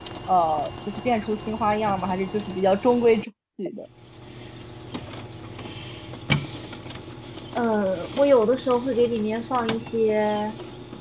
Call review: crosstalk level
none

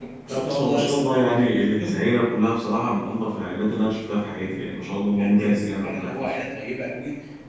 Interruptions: present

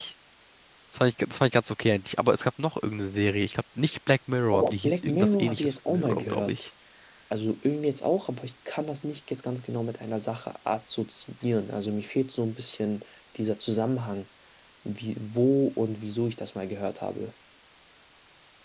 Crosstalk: present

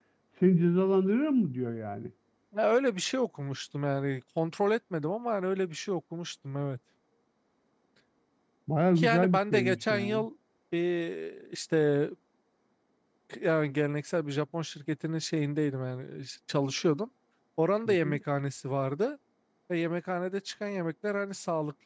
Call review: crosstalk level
present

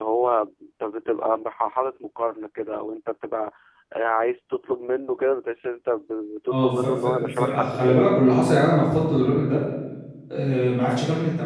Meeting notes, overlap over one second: present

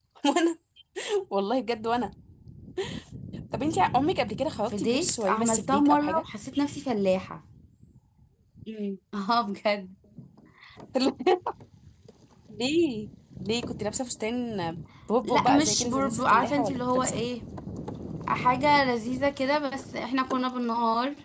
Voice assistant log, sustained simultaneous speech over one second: present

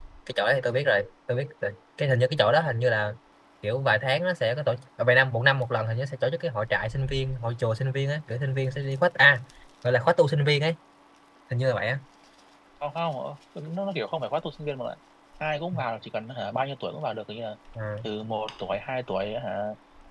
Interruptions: none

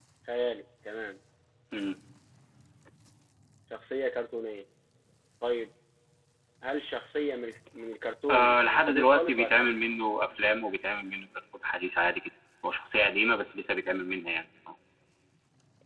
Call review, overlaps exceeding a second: present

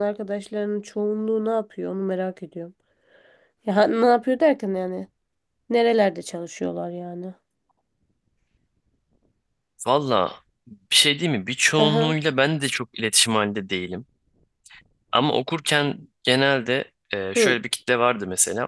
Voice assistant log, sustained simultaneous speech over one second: none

